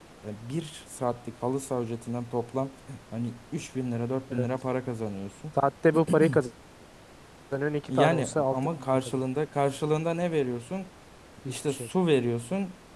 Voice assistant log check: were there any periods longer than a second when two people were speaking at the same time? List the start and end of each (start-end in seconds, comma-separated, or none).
7.9-9.2